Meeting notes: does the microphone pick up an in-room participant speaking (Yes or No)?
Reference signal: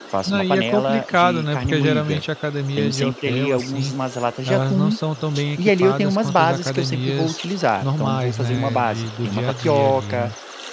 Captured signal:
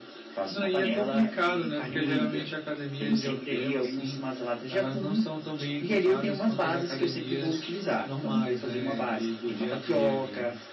No